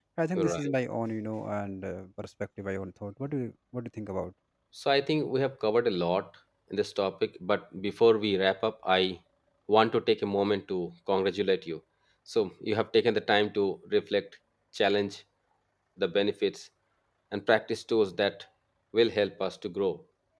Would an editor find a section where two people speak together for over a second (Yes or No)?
No